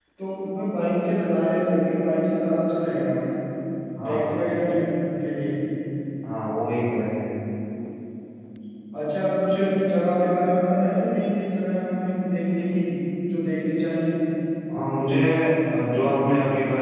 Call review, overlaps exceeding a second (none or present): none